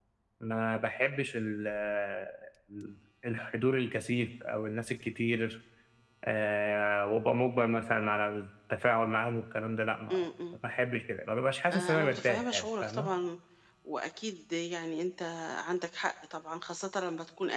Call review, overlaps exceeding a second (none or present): present